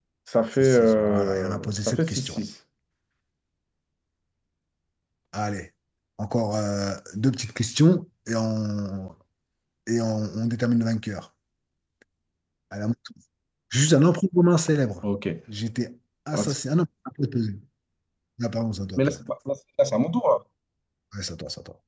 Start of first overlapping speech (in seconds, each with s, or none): 0.5 s